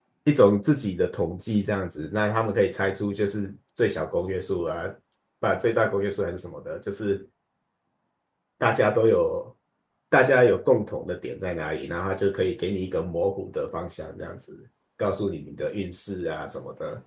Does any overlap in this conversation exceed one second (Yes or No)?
No